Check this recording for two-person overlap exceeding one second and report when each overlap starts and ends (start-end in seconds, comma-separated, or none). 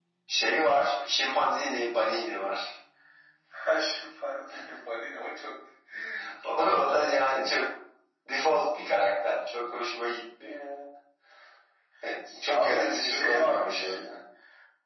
12.5-14.0